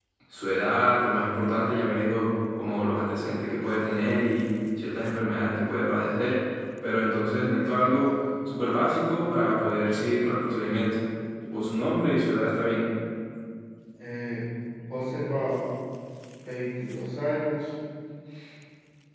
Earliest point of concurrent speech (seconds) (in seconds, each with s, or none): none